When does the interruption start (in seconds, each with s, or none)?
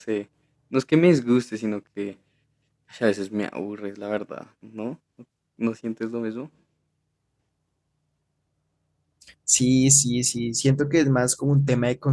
none